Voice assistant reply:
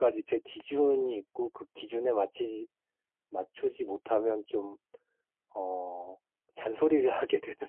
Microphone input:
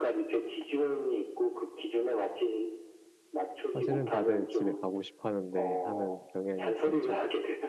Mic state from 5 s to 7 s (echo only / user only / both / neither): both